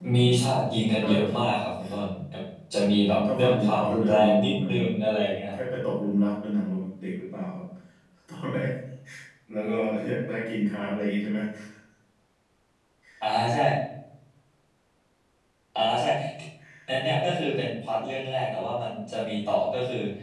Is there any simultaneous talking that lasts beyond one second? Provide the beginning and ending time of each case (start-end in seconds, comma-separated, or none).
3.1-4.9